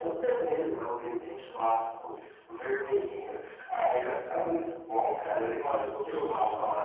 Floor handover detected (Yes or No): Yes